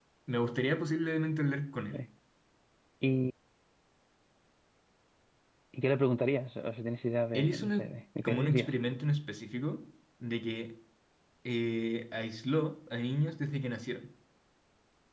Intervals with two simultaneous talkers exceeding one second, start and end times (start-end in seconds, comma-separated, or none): none